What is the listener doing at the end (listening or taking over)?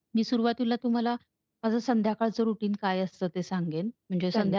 listening